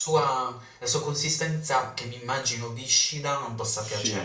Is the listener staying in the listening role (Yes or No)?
No